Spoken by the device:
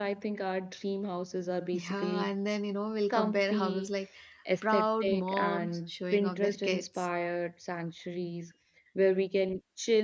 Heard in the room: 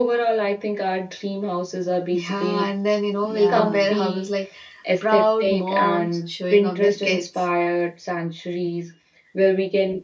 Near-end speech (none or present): present